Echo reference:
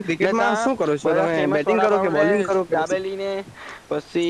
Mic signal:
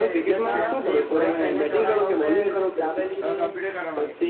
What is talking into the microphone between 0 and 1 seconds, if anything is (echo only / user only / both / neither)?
both